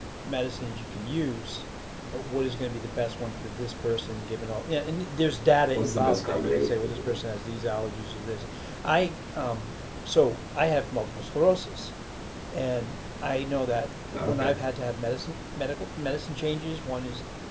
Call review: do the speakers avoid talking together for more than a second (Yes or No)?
No